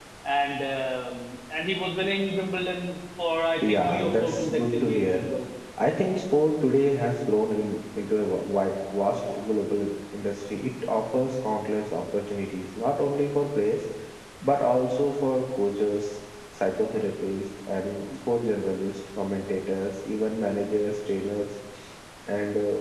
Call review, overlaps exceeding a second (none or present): present